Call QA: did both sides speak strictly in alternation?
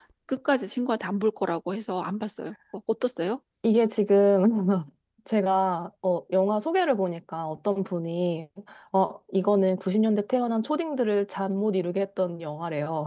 Yes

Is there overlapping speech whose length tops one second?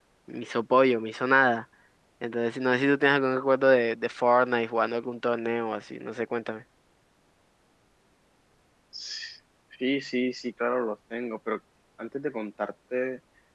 No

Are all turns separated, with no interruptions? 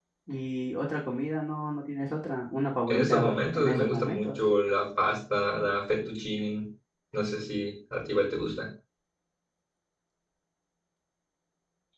No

